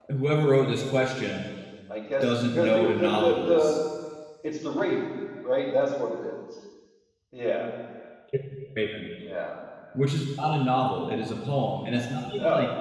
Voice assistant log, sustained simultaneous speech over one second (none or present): present